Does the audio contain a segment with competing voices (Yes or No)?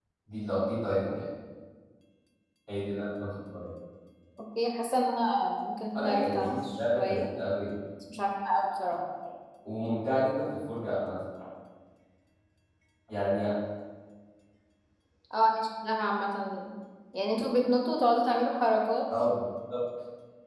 Yes